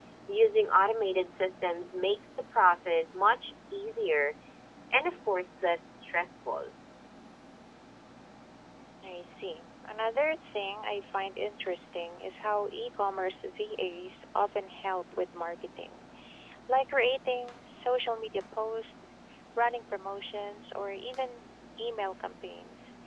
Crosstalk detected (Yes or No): No